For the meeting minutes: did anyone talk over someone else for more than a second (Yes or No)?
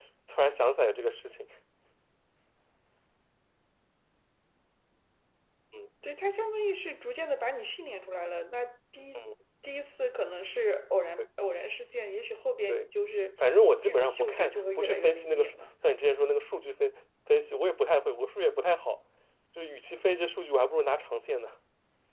Yes